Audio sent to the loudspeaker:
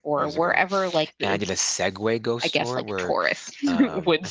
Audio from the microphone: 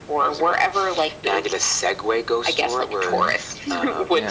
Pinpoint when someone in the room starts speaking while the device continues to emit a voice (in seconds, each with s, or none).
3.1 s